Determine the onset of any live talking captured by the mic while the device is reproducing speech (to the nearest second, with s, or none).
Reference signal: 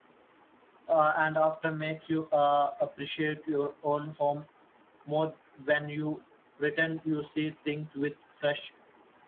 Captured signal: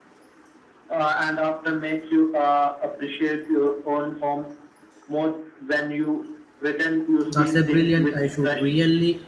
7 s